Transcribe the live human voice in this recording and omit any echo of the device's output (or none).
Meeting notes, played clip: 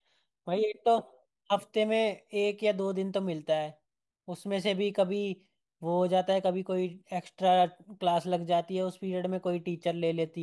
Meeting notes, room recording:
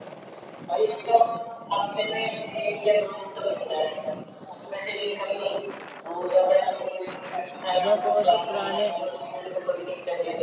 अबे वो जो पुराने